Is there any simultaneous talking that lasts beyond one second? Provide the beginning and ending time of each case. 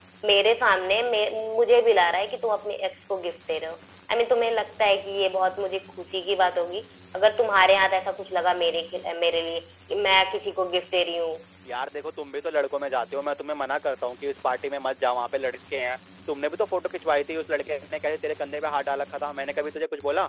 none

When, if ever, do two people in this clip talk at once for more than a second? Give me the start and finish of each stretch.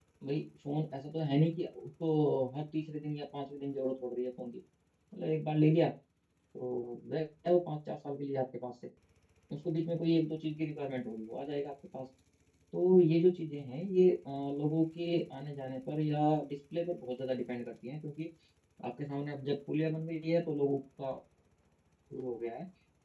none

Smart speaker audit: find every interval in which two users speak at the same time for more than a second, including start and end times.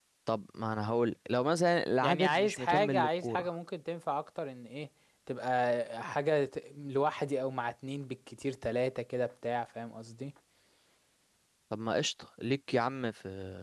2.0-3.5

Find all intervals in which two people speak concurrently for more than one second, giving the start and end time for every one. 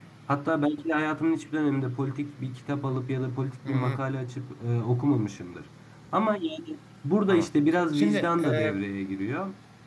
7.3-8.7

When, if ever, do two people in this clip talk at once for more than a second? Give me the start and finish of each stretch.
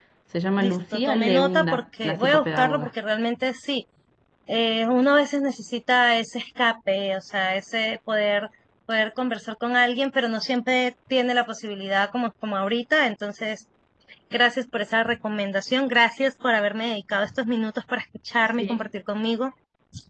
0.6-2.9

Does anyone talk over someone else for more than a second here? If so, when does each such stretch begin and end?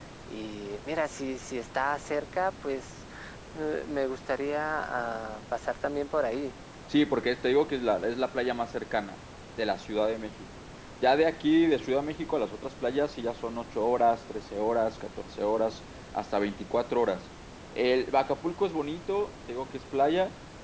none

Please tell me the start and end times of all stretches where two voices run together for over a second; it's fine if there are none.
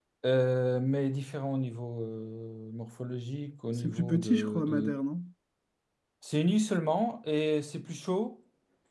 3.8-5.0

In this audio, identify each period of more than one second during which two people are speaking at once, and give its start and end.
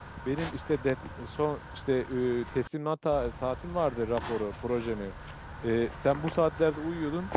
none

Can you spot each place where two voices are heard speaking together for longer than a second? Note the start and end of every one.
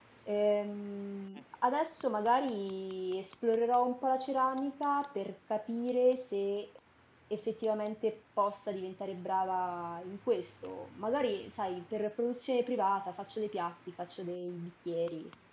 none

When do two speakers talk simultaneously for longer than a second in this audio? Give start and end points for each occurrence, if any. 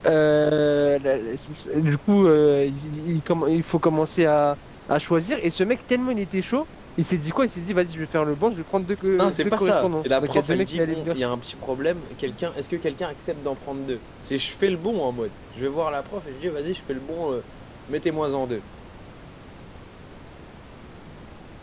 9.2-11.2

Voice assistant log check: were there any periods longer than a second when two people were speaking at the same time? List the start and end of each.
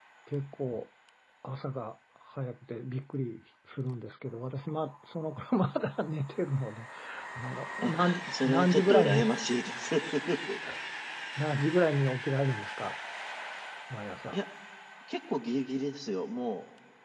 7.8-9.2

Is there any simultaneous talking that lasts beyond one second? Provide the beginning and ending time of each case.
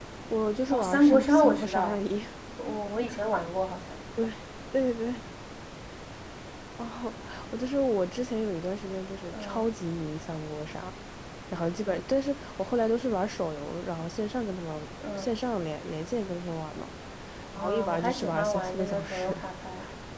0.7-2.0, 17.6-19.4

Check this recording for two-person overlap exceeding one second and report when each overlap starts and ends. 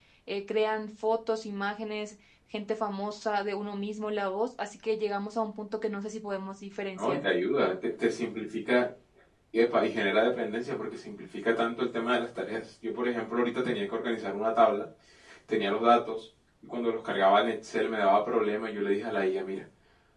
none

